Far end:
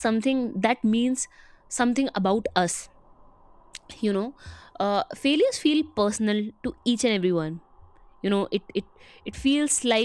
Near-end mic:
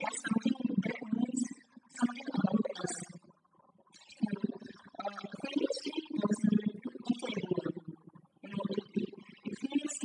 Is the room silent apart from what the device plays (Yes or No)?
Yes